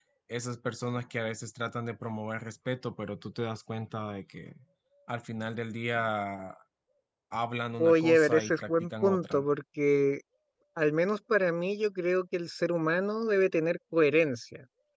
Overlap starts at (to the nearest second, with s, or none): 8 s